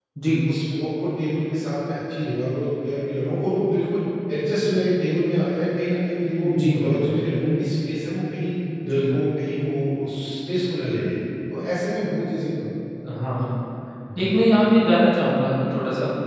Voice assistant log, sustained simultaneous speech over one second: none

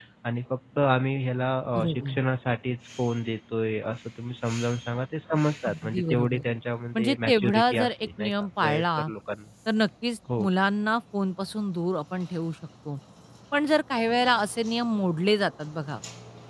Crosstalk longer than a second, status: present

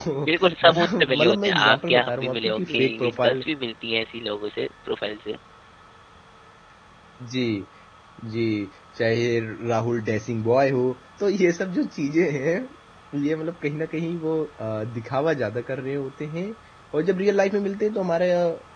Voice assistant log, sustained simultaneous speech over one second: present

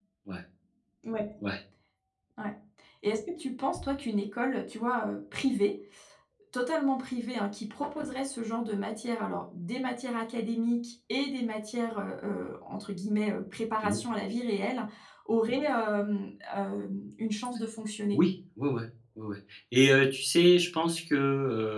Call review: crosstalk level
none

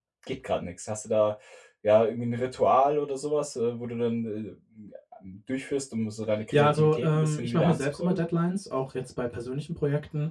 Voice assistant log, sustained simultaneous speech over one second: present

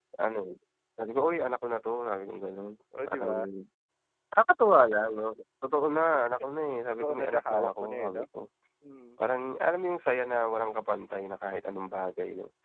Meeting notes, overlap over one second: present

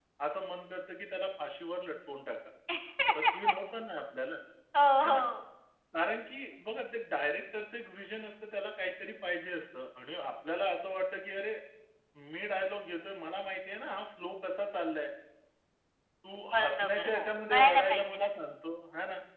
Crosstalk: present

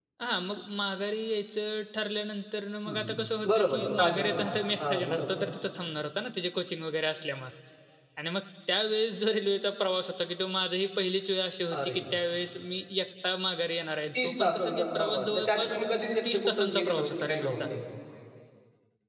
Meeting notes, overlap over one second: present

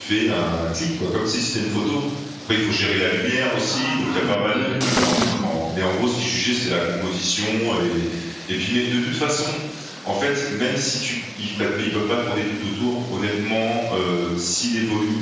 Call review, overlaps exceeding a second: present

